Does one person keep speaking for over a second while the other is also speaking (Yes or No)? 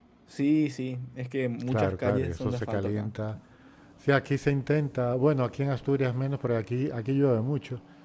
Yes